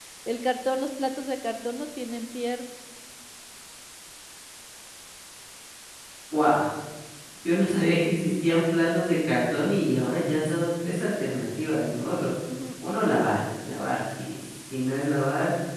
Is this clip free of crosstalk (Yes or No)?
Yes